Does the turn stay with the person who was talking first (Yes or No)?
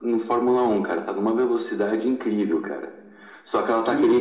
Yes